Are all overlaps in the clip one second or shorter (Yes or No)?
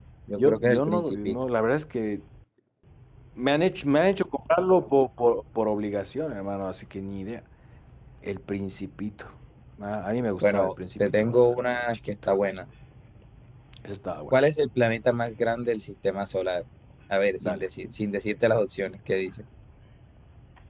No